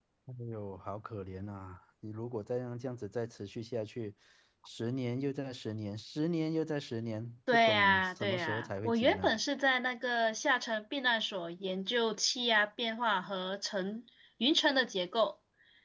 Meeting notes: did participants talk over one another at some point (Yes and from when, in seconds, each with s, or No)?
Yes, from 7.5 s